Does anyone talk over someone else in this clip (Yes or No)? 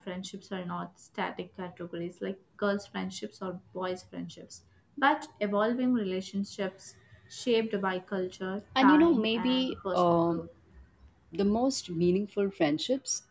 Yes